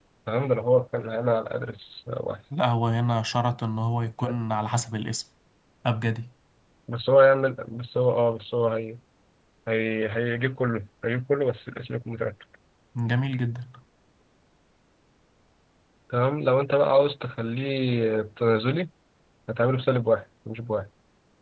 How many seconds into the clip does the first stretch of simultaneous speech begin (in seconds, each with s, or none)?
none